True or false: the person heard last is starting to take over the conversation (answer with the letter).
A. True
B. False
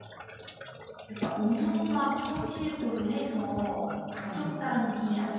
B